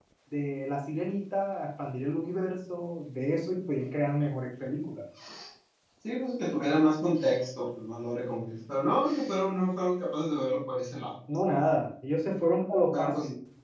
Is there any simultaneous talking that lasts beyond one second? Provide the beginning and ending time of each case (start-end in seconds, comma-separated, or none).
none